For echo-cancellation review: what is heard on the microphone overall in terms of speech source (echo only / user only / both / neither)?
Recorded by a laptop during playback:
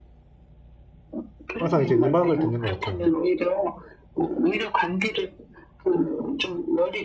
both